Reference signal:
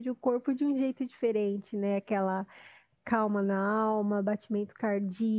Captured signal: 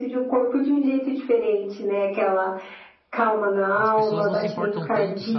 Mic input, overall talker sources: both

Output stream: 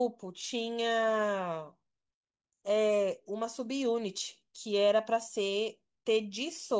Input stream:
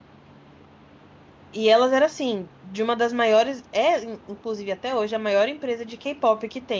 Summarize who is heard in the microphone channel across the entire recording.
user only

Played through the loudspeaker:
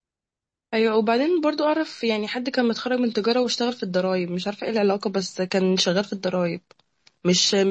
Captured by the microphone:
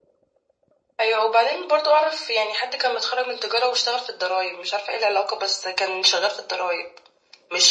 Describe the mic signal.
echo only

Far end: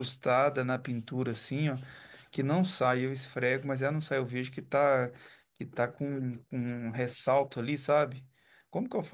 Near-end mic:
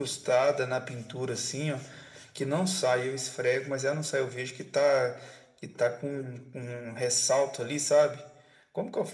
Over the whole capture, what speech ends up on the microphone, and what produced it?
echo only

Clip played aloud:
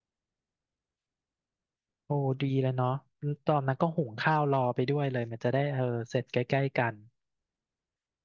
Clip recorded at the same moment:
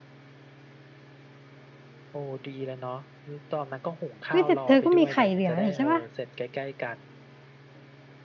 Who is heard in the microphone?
both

